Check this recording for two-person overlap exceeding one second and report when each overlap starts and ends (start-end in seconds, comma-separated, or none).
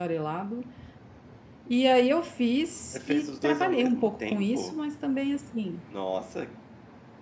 2.9-4.8